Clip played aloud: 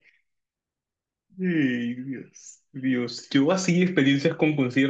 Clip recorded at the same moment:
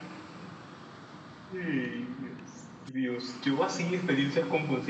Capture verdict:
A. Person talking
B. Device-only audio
B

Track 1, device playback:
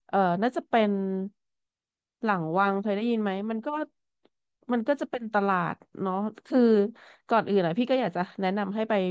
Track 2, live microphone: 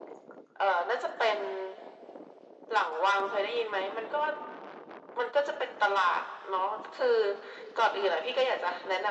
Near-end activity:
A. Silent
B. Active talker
A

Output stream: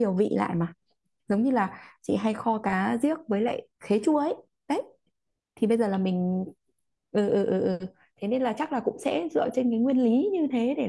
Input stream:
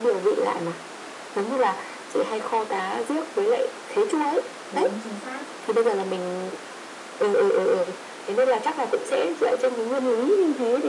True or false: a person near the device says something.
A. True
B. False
A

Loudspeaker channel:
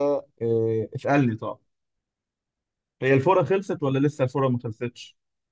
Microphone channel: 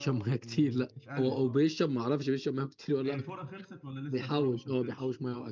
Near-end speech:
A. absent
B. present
B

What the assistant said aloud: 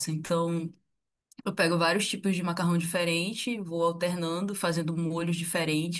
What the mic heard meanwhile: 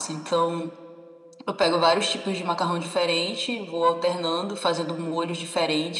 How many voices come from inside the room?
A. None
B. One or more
A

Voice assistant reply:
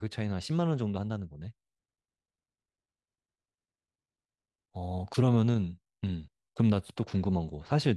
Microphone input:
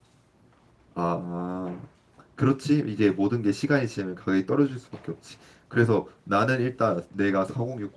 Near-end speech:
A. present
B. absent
A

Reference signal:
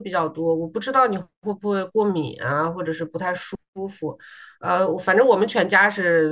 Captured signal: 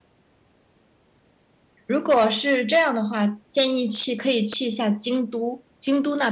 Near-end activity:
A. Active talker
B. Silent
A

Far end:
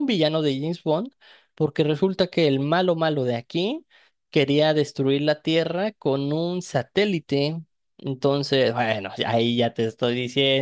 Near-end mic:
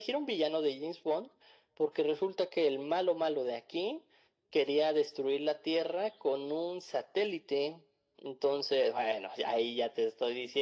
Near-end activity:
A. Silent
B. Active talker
A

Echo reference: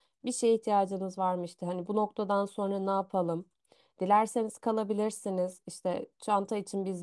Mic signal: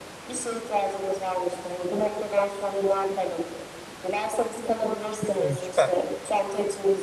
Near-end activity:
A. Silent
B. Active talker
B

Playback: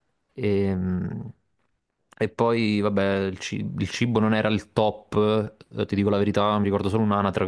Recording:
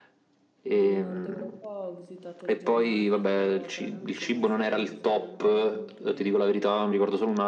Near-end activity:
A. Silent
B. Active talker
B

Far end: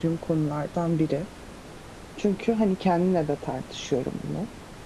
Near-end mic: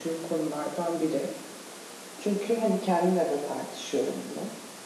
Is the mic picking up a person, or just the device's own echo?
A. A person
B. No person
B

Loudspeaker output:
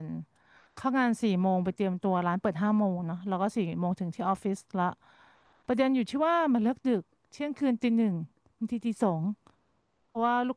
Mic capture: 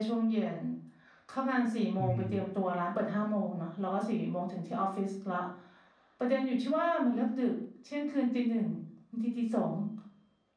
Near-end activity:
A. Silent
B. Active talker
B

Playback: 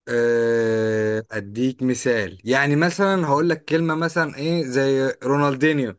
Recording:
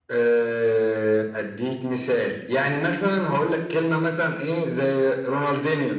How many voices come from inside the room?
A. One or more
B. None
B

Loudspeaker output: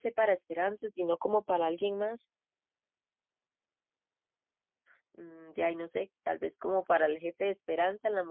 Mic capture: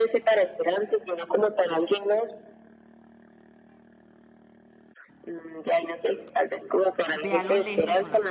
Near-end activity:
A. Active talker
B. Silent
A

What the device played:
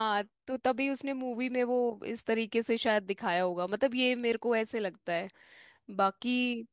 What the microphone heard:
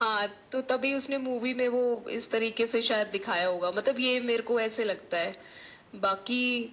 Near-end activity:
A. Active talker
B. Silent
B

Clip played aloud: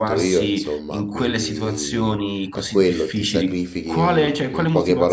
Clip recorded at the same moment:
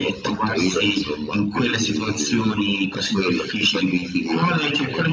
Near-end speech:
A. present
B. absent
B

